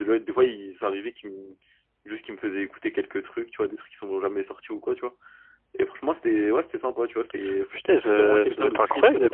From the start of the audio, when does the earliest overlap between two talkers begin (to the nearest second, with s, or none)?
8 s